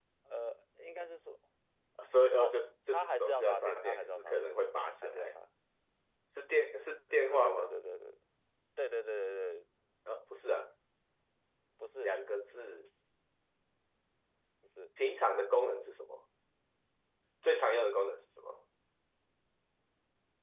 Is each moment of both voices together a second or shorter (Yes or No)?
No